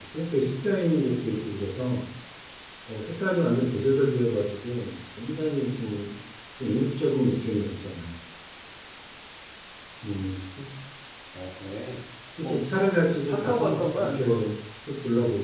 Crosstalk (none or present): present